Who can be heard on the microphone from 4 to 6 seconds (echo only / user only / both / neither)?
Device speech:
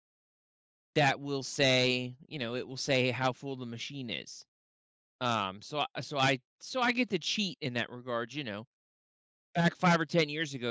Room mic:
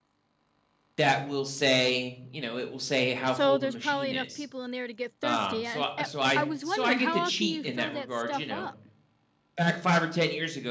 both